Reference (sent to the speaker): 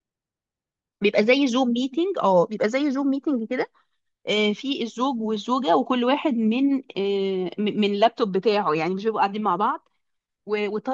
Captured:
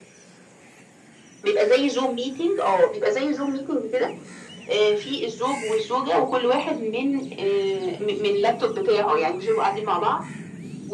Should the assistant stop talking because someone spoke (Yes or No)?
No